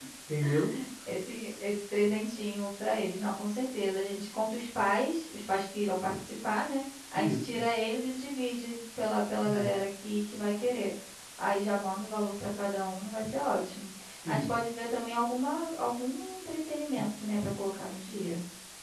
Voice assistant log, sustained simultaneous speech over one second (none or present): none